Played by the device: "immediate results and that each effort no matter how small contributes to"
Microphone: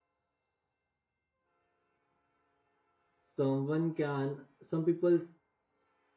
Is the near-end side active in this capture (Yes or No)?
Yes